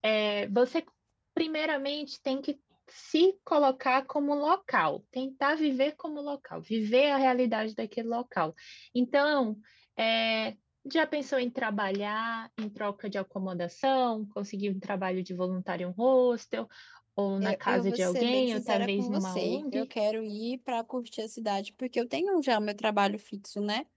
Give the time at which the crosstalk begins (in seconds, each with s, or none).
17.4 s